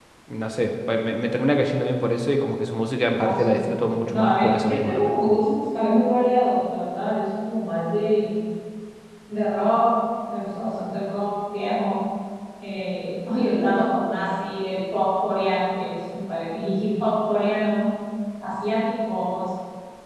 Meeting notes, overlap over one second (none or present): present